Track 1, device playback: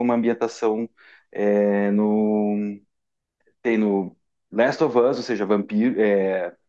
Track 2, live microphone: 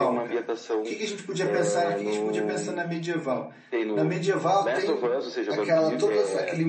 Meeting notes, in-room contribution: present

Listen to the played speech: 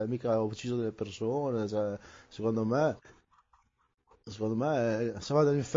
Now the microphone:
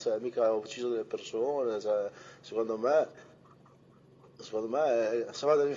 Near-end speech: none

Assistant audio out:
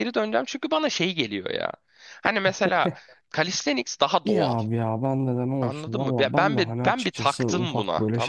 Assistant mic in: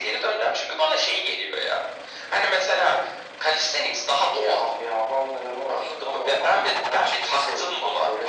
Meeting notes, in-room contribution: none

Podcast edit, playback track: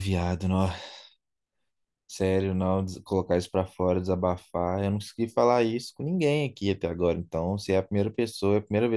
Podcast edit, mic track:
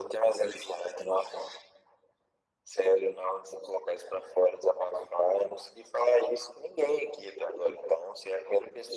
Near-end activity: none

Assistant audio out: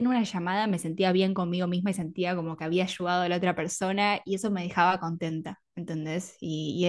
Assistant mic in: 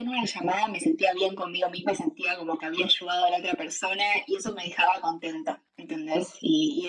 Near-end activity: none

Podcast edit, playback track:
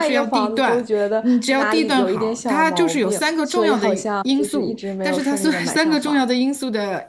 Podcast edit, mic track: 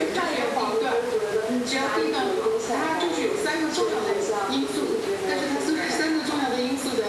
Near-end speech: none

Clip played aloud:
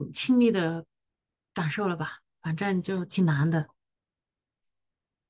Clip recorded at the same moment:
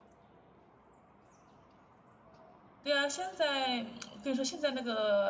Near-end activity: present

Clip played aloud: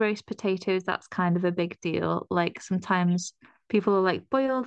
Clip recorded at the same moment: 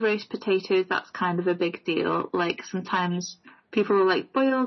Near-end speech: none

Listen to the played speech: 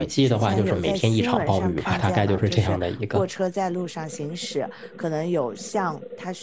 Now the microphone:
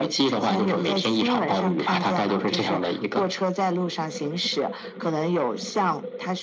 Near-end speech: none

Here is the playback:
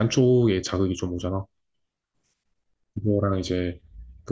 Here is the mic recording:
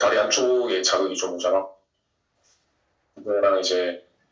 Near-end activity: none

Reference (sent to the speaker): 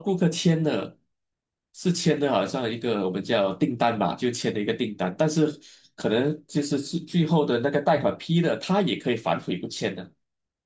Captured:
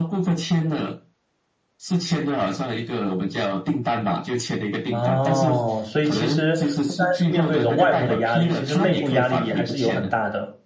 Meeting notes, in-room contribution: present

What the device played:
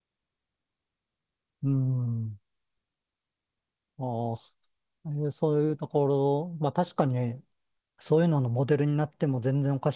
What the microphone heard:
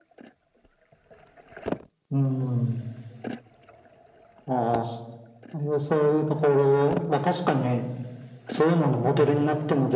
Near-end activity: none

